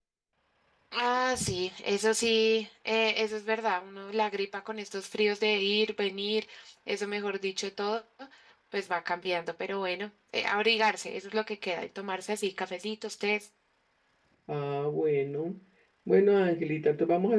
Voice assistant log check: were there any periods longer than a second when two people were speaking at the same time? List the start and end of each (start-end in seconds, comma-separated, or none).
none